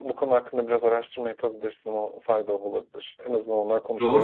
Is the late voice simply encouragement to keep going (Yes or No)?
No